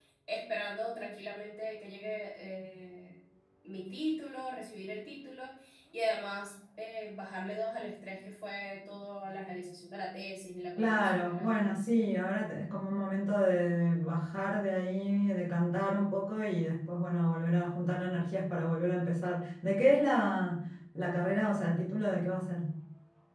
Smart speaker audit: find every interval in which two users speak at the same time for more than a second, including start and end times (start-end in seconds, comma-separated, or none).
10.8-12.0